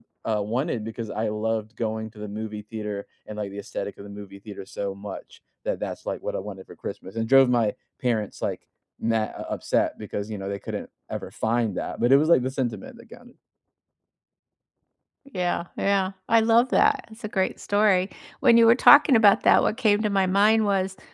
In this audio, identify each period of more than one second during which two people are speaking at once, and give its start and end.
none

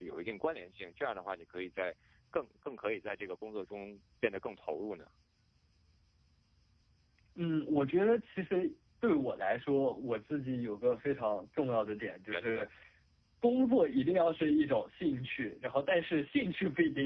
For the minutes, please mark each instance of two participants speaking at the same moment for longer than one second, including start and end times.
none

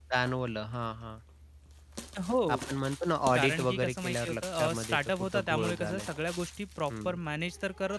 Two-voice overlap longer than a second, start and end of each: 3.4-6.1

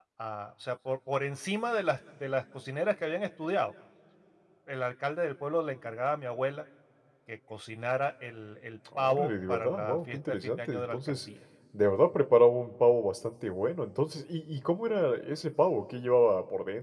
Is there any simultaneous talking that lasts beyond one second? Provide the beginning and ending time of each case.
9.0-11.2

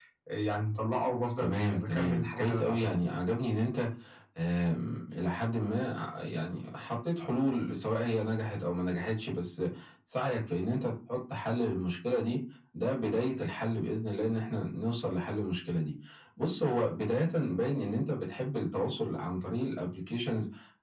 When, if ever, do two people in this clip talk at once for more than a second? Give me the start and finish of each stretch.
1.4-3.0

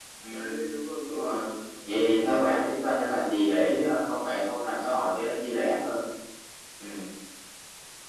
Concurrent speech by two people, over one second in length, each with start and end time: 1.9-3.3

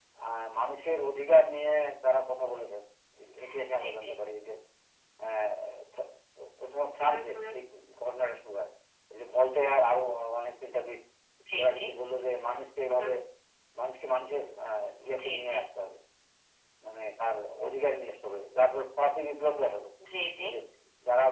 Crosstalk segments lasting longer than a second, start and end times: none

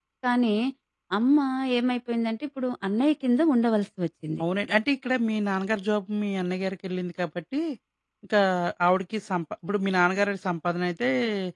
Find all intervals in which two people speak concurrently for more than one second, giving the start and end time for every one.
none

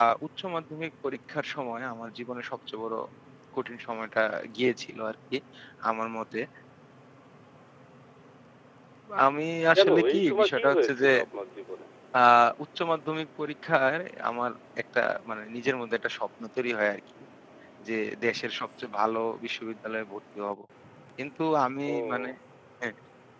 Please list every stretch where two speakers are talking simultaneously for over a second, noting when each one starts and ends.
9.8-11.1

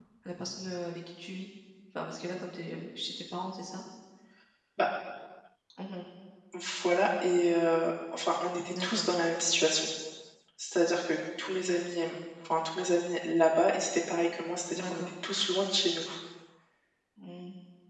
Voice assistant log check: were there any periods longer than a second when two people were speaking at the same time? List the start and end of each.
none

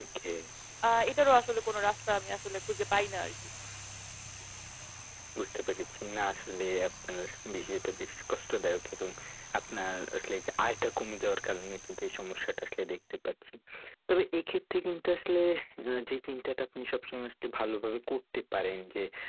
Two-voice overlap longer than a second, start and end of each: none

